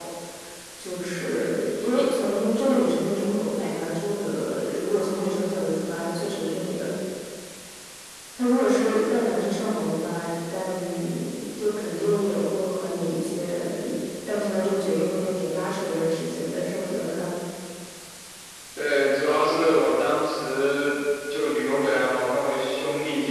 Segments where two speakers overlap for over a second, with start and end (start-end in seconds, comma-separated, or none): none